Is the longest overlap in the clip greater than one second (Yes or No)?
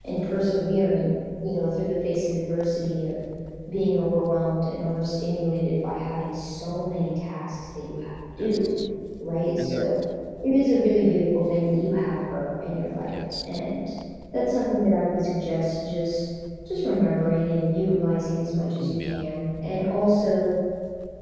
No